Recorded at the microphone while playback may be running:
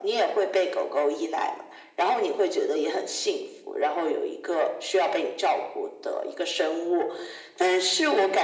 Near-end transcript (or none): none